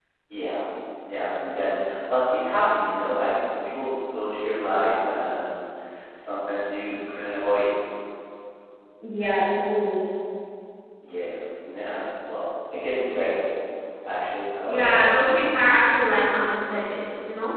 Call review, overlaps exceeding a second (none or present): none